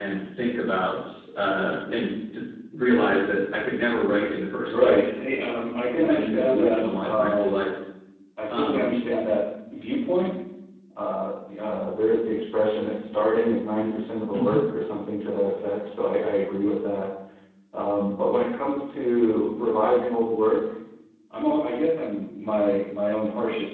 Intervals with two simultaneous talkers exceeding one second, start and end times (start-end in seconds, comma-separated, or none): 6.0-7.5